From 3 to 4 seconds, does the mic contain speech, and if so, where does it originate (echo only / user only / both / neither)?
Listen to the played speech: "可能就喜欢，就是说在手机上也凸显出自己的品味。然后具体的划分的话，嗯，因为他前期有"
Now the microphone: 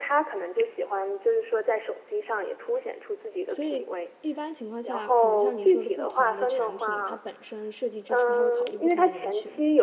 both